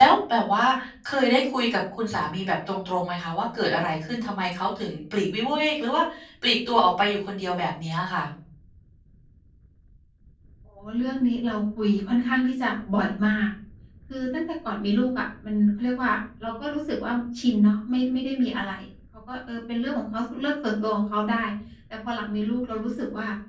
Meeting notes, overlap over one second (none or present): none